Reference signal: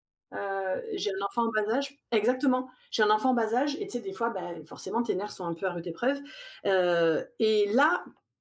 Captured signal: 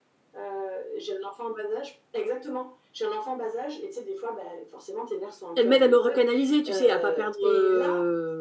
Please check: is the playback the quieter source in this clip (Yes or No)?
Yes